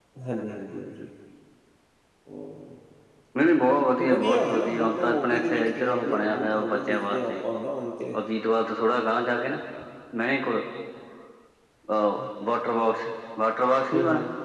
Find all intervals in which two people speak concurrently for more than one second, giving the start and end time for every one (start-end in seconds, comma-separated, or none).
4.0-7.3